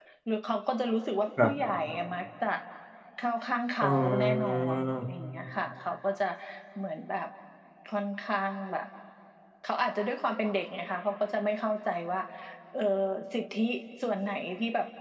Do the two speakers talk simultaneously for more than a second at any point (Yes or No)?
Yes